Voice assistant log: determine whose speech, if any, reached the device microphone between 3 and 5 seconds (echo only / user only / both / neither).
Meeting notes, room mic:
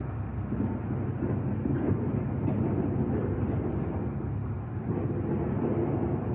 neither